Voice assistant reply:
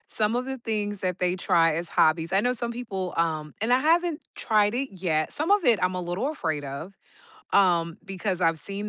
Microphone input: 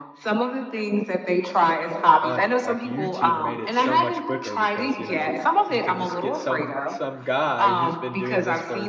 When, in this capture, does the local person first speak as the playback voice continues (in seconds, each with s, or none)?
2.2 s